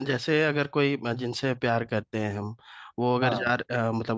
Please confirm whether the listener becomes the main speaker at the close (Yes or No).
No